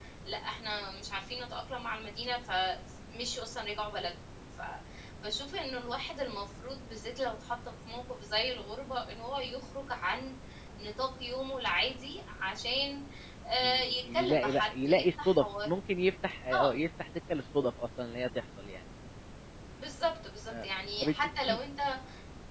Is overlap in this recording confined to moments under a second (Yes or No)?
No